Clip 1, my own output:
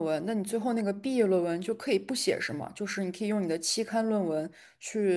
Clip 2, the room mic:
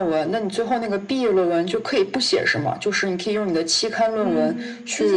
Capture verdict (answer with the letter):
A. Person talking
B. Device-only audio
A